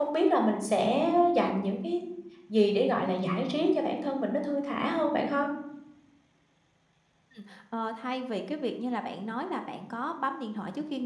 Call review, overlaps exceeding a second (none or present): none